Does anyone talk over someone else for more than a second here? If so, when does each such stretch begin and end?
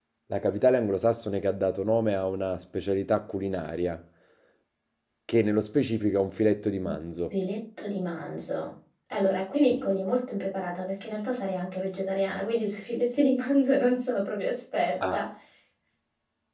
none

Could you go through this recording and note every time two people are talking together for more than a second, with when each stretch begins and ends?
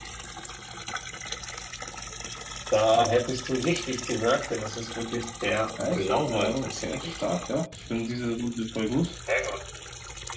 5.8-7.1

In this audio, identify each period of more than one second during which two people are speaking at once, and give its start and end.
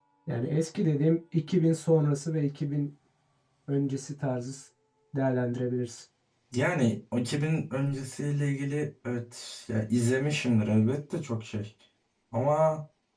none

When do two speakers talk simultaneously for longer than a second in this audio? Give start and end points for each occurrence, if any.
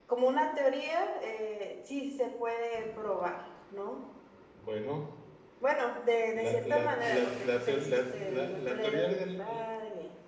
6.3-9.6

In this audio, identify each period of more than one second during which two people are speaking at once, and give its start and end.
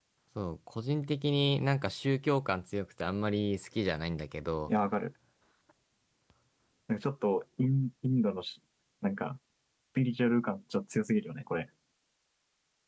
none

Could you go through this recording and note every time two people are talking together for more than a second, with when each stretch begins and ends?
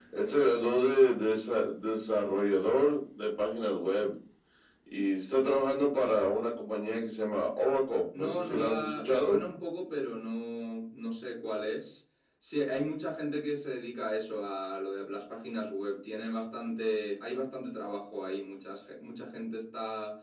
8.2-9.4

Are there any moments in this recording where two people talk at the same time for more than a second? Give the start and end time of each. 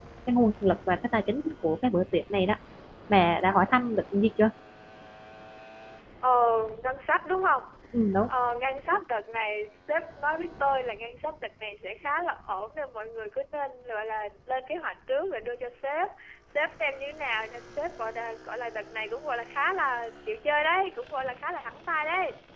none

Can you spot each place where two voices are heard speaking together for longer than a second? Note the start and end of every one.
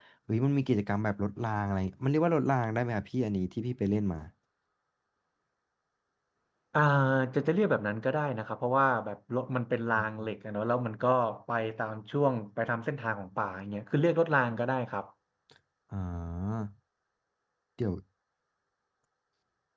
none

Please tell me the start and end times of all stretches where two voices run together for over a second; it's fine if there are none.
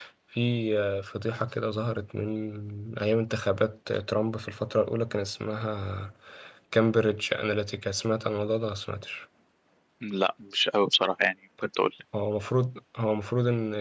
none

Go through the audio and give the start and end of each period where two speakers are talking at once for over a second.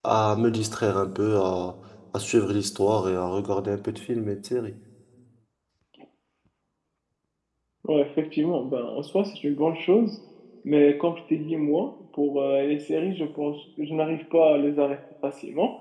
none

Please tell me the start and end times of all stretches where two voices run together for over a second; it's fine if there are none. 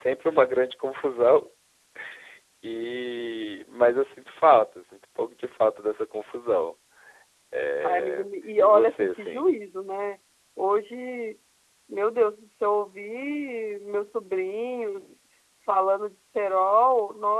7.8-9.5

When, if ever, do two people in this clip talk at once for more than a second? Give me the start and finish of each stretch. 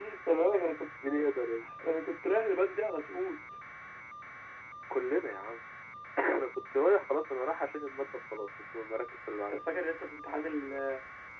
none

